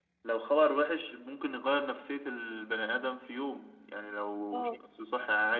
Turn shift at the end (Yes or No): No